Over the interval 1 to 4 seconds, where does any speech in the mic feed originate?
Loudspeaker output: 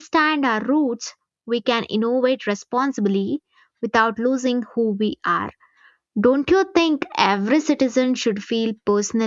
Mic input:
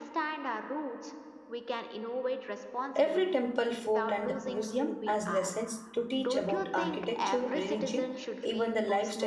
both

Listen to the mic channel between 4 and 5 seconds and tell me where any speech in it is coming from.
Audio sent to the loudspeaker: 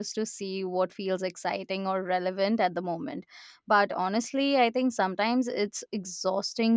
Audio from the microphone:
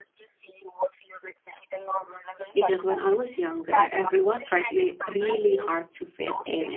both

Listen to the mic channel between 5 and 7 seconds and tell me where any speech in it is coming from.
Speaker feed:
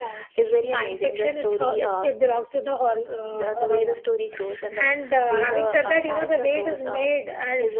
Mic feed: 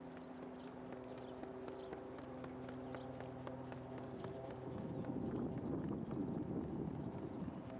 neither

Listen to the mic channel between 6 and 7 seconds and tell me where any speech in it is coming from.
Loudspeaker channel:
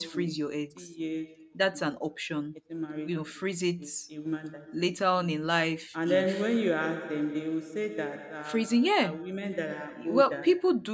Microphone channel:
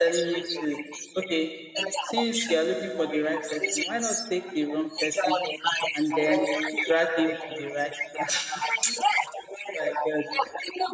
both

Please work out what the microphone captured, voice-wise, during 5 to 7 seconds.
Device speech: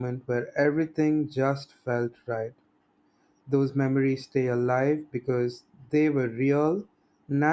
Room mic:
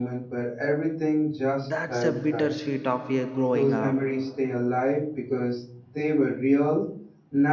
echo only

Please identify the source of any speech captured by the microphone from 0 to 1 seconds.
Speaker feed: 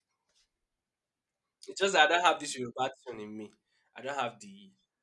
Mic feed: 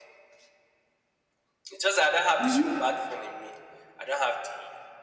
neither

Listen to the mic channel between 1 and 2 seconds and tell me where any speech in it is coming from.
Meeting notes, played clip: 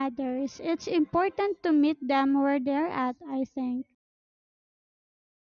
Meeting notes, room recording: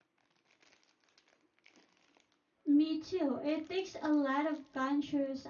neither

